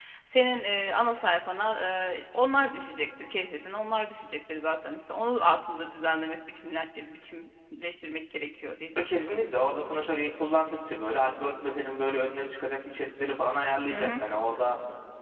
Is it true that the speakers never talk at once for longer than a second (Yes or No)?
Yes